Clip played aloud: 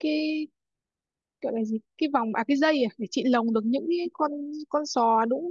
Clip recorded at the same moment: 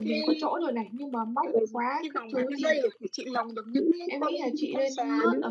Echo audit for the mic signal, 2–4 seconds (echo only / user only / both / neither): both